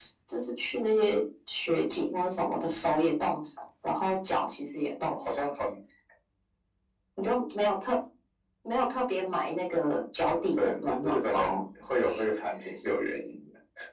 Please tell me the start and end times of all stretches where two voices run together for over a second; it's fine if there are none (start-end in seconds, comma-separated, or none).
10.2-11.6